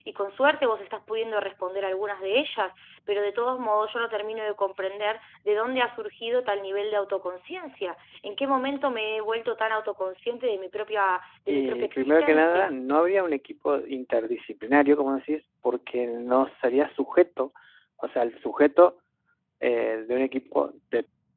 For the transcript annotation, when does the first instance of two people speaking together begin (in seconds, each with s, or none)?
11.5 s